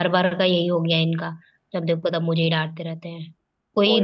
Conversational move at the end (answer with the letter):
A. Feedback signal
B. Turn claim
A